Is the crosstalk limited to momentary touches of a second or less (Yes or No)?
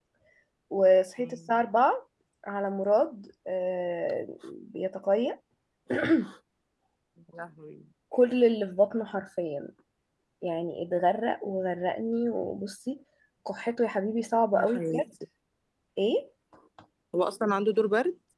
Yes